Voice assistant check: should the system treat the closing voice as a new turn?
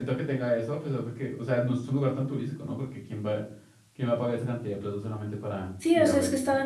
Yes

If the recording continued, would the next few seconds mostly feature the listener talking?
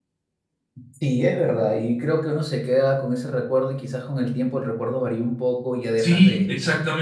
Yes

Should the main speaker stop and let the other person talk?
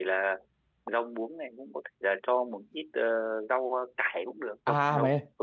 Yes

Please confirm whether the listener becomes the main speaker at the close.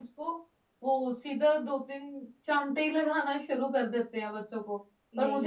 No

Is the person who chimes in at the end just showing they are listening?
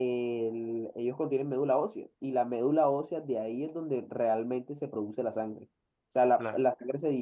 Yes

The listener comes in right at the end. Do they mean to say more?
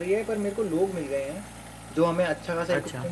No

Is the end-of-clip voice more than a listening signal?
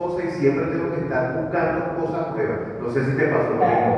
Yes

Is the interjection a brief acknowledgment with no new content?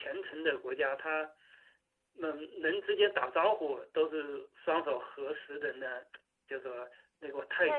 No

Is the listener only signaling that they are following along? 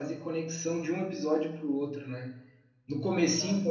Yes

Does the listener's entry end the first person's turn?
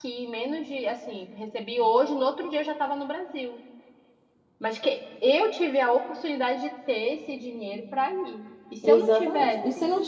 Yes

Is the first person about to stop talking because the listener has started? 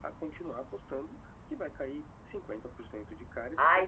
Yes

